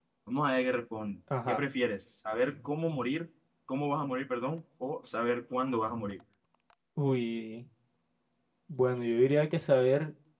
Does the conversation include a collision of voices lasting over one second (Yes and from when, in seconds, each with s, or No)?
No